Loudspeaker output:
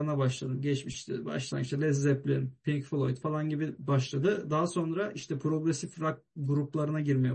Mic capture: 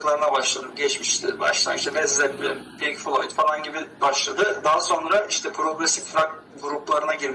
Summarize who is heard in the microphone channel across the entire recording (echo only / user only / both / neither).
echo only